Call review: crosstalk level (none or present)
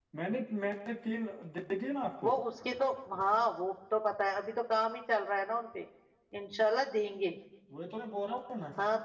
none